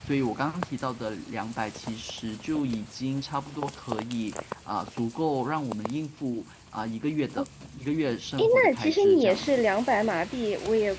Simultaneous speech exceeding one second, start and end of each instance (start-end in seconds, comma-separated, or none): 8.4-9.6